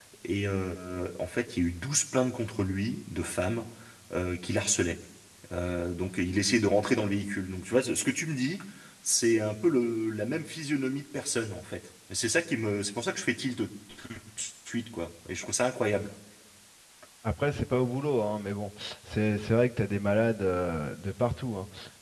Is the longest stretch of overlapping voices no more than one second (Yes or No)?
Yes